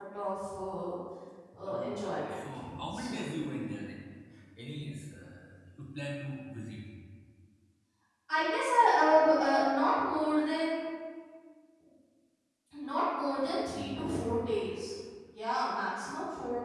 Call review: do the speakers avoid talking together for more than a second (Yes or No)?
No